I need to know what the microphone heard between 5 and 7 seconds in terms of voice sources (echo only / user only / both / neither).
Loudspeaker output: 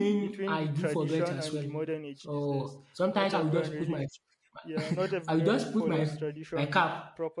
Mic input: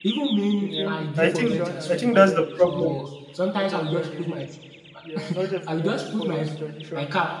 echo only